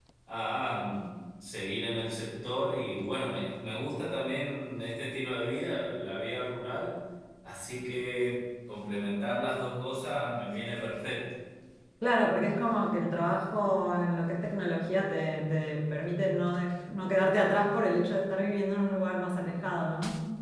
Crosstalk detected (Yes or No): No